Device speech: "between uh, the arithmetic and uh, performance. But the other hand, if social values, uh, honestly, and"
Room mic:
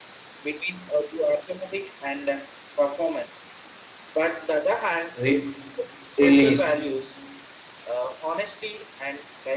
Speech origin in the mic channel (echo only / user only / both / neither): both